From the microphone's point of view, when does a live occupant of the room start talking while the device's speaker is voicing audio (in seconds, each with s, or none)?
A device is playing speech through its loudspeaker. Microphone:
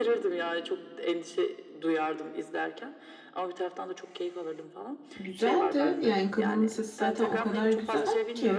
5.2 s